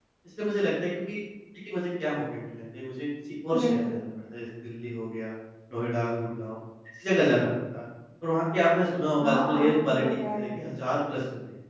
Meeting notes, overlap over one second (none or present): present